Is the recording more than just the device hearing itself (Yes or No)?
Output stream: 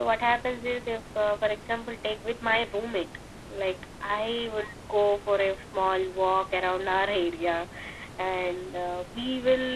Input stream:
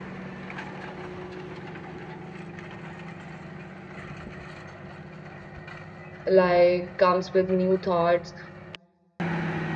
Yes